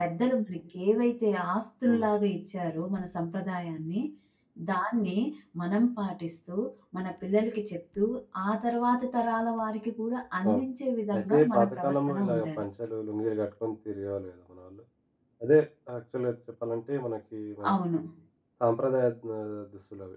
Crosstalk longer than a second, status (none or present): present